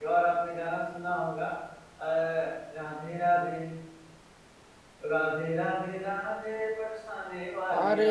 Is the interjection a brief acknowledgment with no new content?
No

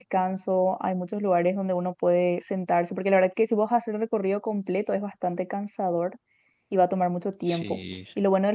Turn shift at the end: No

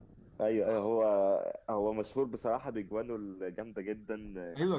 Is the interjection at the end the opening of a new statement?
Yes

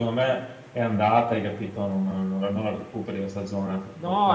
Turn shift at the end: Yes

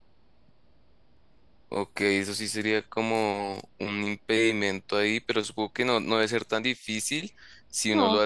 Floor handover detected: No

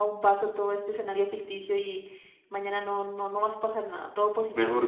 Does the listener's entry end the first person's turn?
Yes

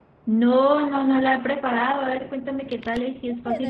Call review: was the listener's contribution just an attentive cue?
No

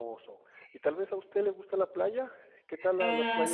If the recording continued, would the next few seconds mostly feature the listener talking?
Yes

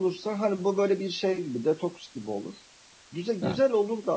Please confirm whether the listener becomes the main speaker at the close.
No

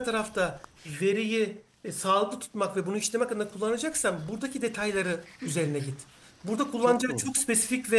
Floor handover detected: No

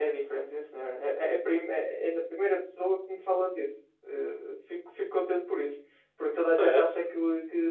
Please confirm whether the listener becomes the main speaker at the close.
No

